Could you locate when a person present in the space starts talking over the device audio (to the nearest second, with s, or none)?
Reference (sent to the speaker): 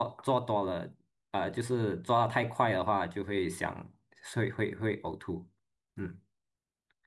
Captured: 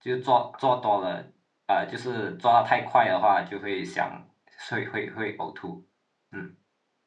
none